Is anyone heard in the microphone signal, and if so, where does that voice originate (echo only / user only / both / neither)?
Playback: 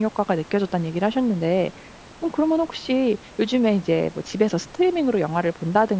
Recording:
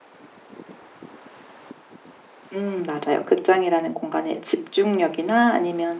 user only